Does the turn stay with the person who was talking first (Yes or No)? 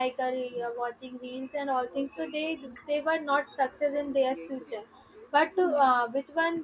Yes